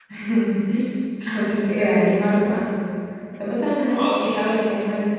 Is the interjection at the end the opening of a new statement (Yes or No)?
No